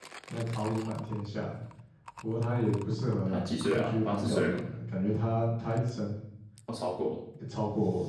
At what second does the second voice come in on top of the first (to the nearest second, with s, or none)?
3 s